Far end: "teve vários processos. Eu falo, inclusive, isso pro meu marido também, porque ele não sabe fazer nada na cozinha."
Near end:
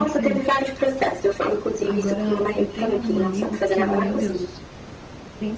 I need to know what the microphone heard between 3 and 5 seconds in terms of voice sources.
both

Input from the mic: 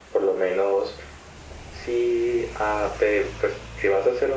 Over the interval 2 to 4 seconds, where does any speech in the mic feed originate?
echo only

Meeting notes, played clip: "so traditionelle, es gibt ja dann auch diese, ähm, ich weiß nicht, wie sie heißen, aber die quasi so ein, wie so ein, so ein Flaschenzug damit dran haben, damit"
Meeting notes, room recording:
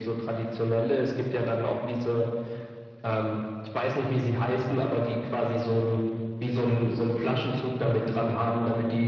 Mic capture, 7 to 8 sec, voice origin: echo only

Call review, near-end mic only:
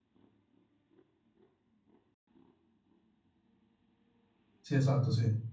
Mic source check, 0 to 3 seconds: neither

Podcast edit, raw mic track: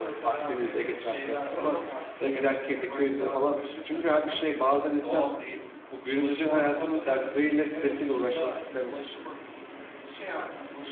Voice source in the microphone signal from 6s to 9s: both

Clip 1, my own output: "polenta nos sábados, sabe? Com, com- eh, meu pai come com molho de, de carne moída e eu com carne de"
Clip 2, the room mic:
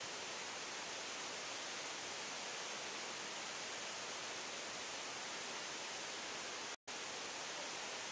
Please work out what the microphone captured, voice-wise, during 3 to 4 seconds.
neither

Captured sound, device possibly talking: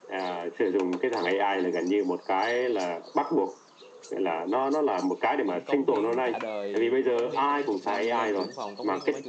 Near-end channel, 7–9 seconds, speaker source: both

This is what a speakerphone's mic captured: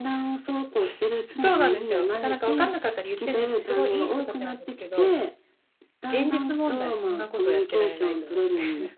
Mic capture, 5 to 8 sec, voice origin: both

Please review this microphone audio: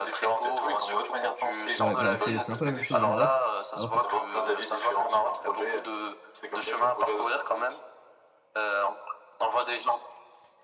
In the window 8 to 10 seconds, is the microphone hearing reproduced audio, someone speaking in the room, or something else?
echo only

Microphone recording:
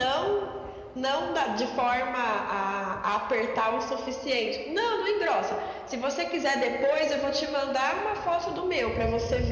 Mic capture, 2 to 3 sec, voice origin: echo only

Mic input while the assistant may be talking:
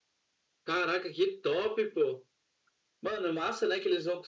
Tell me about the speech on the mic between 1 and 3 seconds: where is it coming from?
echo only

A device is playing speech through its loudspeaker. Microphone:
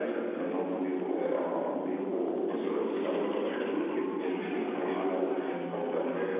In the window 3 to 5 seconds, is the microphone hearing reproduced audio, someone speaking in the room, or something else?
echo only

